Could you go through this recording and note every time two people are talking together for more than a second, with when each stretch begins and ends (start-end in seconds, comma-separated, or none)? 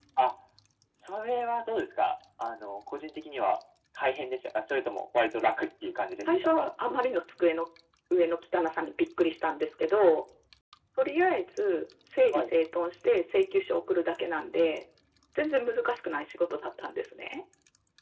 none